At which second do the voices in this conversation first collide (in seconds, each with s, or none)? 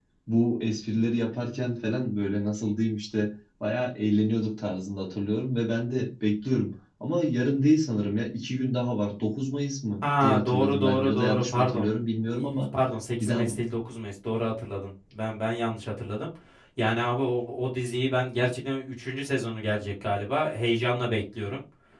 10.0 s